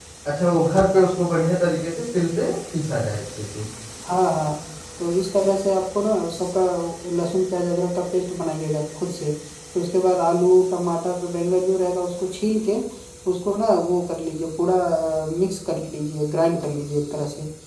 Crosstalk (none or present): none